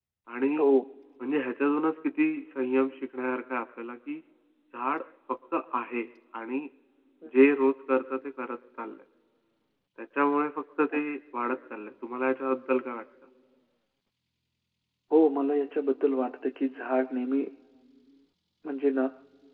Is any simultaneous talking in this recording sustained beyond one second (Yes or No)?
No